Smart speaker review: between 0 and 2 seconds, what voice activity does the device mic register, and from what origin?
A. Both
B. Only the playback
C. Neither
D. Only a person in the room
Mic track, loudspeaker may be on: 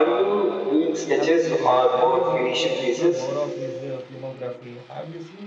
A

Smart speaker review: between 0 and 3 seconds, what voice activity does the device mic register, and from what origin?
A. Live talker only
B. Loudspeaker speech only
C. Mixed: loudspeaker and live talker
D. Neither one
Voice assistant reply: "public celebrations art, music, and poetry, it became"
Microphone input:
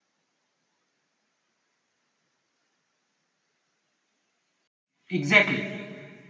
D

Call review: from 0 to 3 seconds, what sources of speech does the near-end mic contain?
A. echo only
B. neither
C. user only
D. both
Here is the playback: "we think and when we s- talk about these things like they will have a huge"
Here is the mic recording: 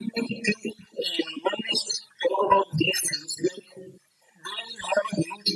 A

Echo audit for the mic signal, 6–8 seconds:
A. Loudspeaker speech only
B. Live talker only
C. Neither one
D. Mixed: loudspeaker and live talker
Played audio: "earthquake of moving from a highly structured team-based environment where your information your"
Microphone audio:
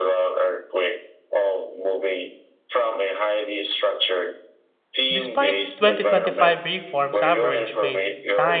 D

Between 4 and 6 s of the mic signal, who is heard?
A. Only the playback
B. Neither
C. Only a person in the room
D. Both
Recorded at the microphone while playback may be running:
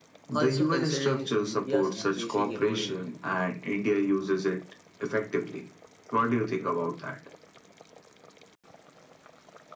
A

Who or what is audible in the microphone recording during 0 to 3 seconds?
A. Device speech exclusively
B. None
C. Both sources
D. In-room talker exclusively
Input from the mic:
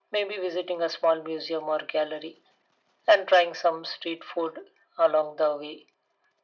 A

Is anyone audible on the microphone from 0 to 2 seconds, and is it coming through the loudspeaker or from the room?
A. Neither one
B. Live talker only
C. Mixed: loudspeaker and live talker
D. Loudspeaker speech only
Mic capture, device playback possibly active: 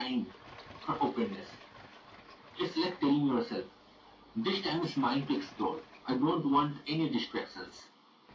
D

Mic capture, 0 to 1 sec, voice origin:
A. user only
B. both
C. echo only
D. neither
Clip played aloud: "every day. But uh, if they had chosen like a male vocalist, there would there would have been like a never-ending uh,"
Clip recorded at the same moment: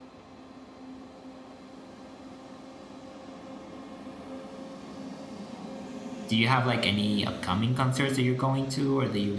D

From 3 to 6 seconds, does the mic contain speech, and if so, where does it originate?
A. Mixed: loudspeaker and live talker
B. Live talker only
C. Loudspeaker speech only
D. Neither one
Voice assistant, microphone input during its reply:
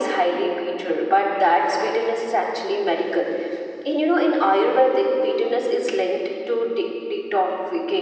C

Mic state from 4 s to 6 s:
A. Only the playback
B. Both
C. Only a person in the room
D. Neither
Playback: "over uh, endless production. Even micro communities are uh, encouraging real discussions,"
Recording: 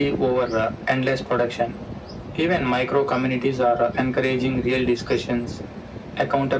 A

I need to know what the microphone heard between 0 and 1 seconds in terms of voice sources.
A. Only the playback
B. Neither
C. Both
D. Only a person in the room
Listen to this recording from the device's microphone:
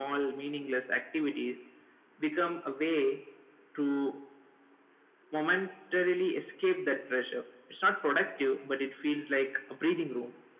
A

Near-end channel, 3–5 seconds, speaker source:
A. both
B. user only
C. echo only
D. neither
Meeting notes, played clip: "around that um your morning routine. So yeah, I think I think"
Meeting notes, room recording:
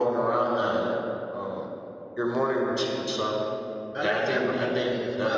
A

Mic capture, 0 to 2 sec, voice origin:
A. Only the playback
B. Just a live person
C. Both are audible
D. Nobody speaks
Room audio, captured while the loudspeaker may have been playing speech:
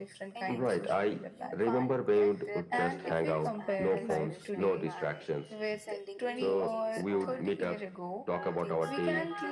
C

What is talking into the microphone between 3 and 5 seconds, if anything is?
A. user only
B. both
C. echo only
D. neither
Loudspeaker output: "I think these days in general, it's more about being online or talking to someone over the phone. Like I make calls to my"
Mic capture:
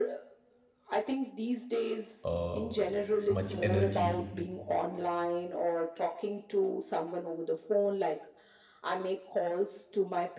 B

